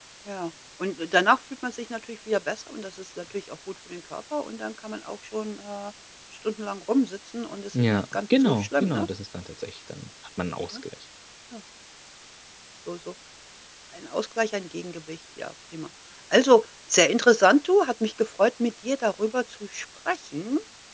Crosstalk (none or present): present